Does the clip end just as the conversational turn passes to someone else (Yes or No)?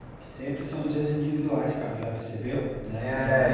Yes